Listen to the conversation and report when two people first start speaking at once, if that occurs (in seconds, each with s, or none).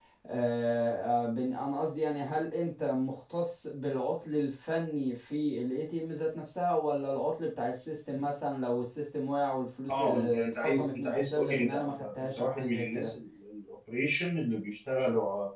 9.9 s